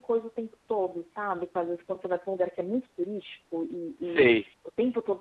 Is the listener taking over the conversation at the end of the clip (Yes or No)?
No